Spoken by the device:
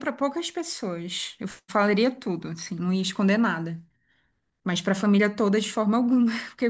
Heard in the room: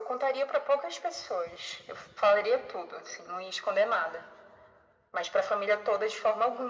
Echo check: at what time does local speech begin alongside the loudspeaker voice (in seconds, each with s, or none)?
none